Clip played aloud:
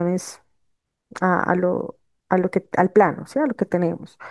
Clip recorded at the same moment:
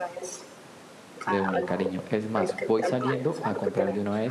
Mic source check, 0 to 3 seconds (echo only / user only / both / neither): both